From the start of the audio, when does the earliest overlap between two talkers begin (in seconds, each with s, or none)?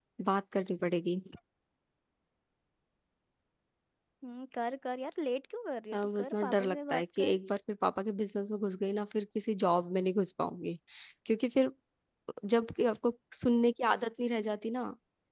5.9 s